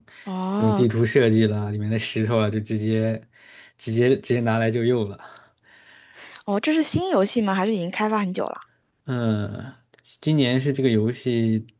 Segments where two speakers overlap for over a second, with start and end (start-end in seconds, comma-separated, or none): none